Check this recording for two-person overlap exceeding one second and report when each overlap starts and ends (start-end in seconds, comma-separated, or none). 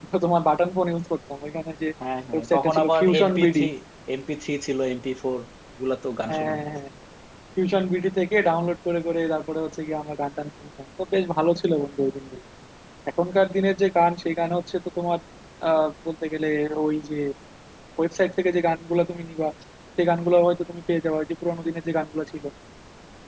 2.3-3.6